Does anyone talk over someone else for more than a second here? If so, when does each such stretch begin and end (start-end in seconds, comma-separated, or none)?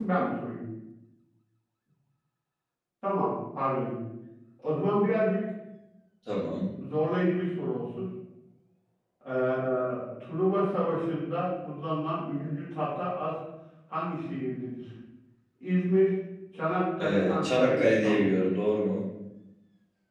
17.0-18.3